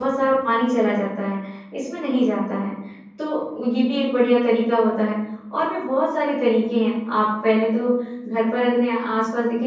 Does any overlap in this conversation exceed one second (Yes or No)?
No